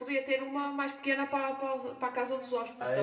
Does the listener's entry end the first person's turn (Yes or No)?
Yes